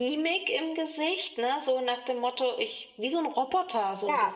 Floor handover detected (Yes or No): Yes